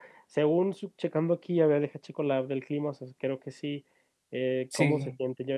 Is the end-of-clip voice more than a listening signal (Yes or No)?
No